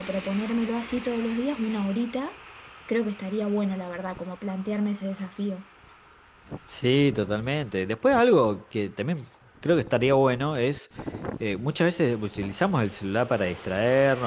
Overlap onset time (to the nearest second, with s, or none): none